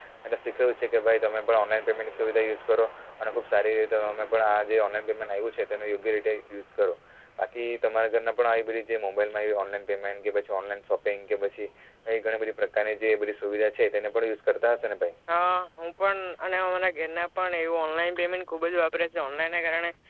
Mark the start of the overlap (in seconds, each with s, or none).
none